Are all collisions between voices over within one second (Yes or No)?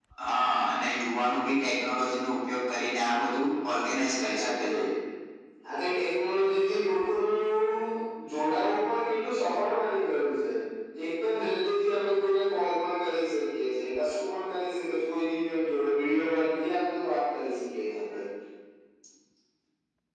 Yes